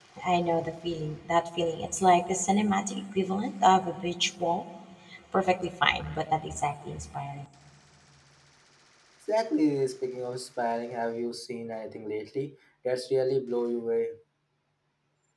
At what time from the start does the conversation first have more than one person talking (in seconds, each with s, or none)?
none